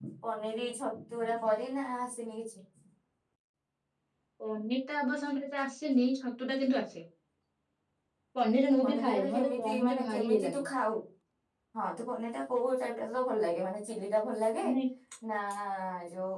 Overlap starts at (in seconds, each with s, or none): 8.8 s